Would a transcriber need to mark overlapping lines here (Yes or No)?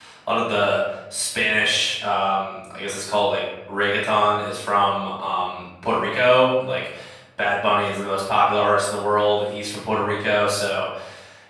No